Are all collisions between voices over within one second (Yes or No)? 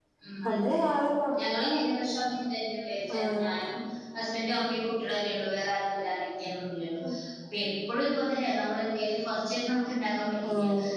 Yes